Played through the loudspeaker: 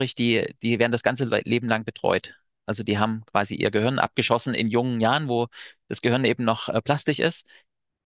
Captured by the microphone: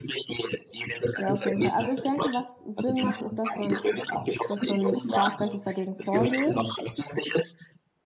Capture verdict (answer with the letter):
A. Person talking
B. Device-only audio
A